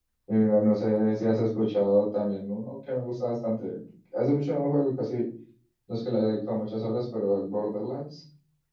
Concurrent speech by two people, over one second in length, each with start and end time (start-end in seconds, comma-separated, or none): none